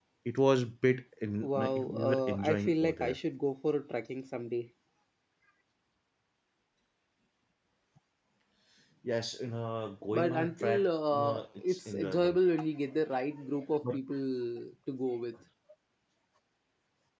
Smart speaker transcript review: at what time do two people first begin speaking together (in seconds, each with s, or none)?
1.4 s